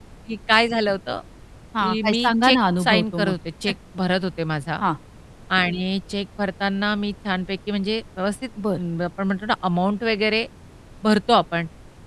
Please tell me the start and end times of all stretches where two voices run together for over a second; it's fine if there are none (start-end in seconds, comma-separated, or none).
1.8-3.4